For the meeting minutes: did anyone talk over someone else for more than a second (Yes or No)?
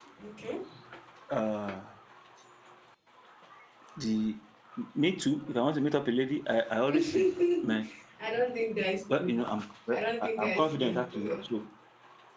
Yes